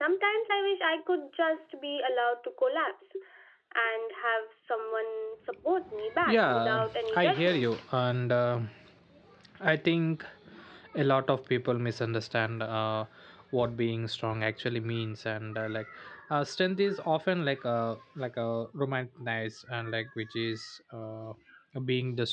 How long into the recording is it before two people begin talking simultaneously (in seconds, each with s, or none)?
6.1 s